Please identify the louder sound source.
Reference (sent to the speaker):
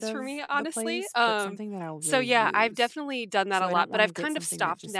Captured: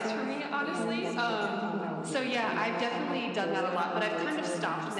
echo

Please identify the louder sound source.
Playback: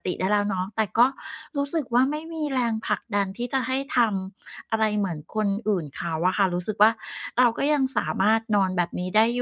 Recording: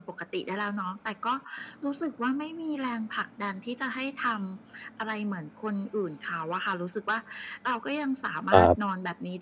user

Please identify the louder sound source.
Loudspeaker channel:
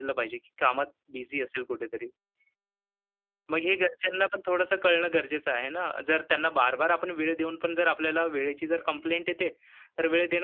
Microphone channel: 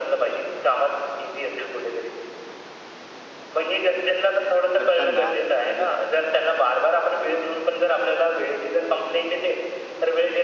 echo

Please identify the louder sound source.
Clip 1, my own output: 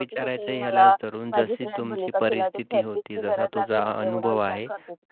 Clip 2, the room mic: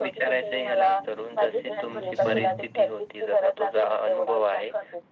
echo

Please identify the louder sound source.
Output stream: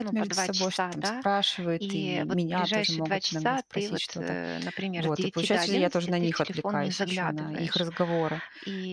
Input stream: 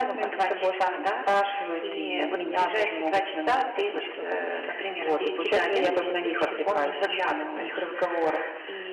echo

